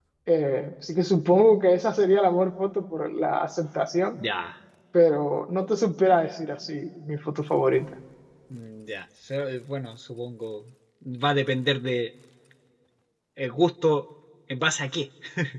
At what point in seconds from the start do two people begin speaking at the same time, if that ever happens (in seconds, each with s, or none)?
none